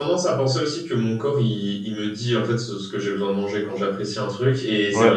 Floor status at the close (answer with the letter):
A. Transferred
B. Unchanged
B